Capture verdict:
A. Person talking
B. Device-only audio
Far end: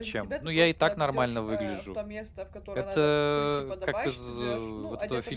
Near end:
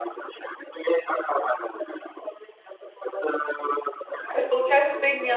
A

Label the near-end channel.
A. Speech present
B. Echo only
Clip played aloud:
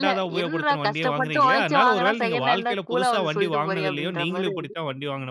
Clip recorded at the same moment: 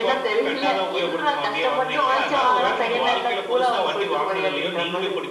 B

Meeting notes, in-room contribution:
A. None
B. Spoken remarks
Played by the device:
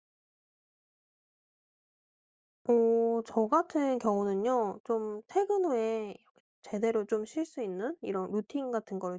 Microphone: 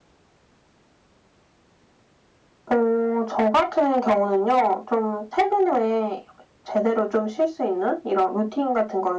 A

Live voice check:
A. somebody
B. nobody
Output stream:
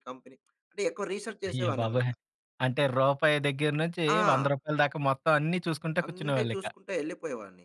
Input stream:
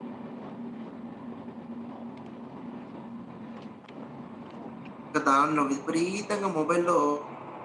A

